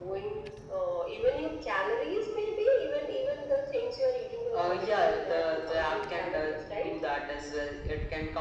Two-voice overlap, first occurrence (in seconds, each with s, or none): 4.5 s